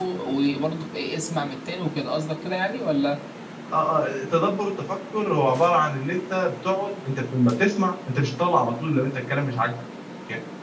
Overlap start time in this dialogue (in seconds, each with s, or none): none